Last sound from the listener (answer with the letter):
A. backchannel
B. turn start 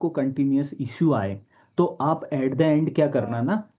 A